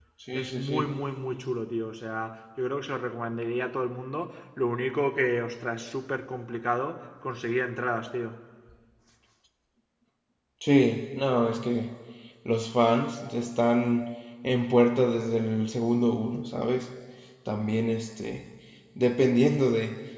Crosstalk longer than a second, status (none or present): none